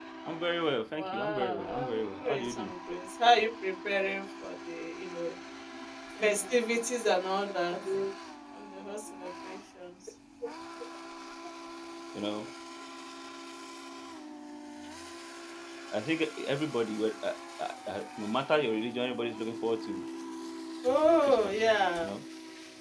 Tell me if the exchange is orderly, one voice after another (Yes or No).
No